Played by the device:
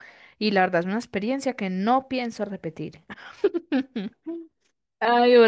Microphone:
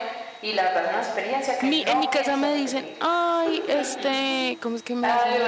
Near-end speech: present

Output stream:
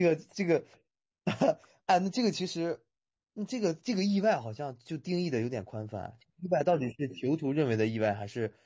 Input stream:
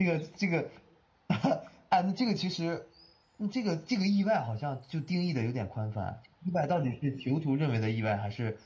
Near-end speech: none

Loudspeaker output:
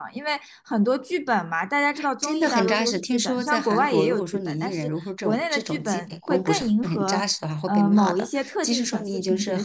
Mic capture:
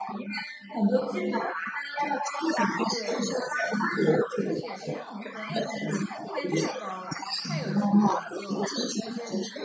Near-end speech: present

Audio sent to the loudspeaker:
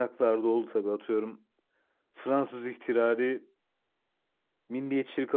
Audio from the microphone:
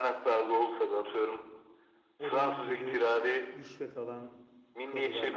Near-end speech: present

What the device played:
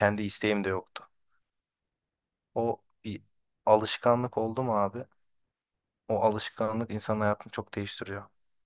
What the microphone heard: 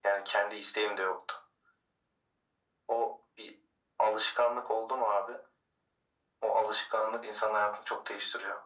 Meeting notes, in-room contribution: none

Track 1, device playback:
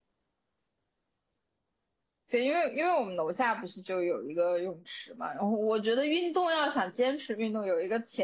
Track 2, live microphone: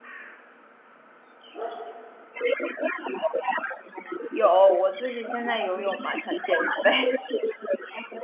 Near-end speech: present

